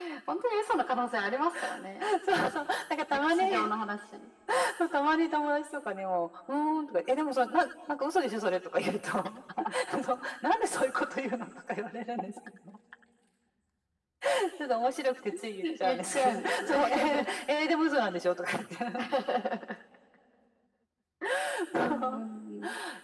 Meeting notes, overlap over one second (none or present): present